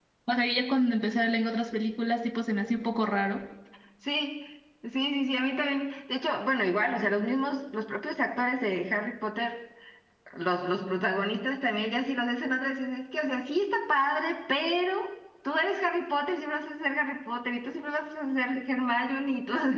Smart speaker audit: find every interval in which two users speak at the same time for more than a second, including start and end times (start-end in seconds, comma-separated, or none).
none